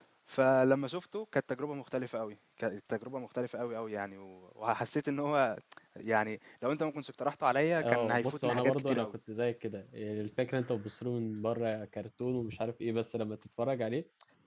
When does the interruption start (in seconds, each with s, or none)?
7.8 s